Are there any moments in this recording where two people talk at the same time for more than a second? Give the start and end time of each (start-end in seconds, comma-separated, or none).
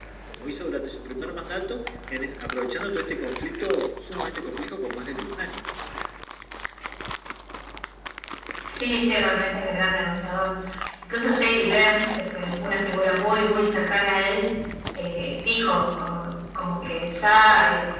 none